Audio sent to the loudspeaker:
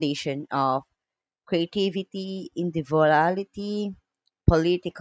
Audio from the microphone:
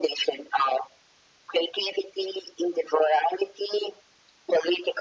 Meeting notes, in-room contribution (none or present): none